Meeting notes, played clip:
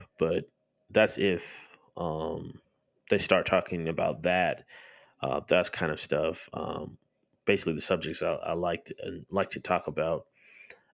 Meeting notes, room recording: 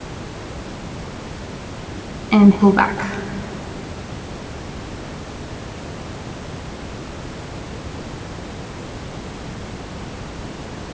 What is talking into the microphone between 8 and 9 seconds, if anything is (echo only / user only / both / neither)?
neither